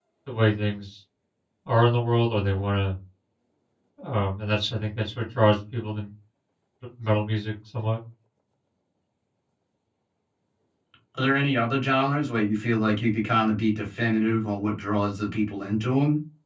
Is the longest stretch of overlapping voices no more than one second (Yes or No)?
Yes